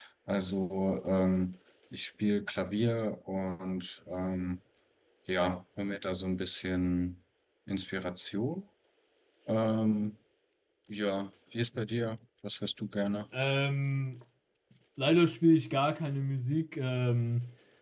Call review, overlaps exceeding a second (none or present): none